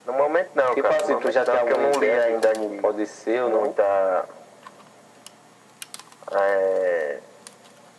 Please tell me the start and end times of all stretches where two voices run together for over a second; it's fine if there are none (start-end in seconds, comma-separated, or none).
0.7-2.9